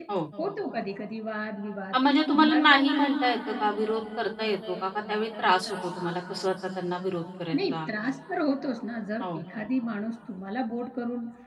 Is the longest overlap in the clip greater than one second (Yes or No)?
No